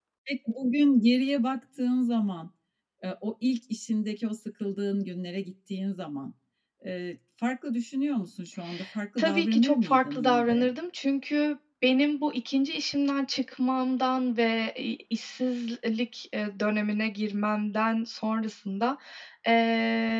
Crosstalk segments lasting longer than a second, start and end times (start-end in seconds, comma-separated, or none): 9.2-10.7